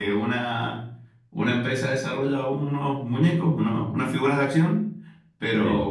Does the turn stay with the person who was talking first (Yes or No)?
Yes